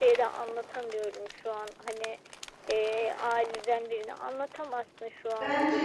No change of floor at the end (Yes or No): No